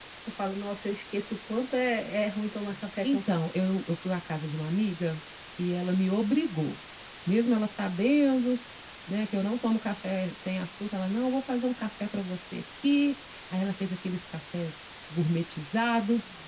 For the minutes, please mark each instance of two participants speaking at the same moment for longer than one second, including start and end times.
none

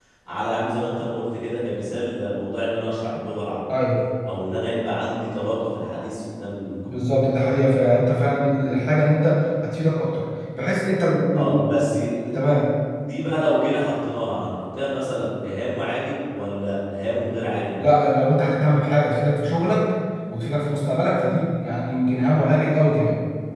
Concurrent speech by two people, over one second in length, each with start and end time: none

